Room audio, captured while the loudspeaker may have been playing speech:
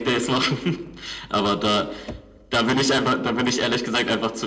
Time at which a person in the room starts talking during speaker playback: none

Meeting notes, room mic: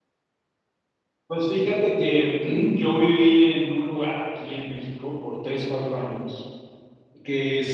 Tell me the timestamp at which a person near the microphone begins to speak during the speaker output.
1.2 s

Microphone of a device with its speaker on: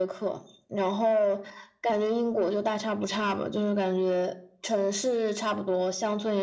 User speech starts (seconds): none

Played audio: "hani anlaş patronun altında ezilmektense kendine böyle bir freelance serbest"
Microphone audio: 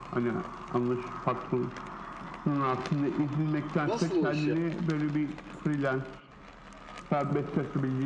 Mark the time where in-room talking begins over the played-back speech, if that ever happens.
3.8 s

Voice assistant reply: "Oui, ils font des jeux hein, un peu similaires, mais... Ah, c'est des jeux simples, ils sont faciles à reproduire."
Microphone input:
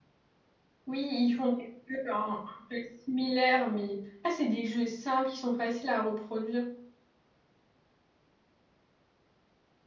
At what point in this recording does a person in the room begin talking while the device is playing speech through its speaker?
none

